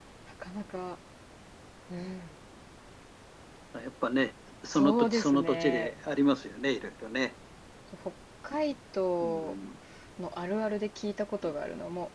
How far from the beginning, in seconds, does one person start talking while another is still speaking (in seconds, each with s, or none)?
4.7 s